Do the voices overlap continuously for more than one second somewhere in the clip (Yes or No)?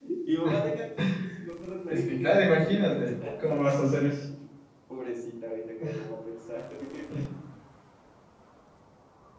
Yes